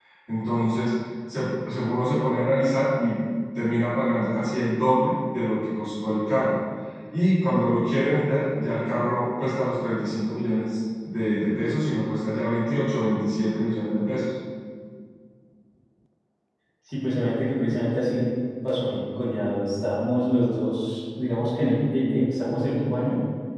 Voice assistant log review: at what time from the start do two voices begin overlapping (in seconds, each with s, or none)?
none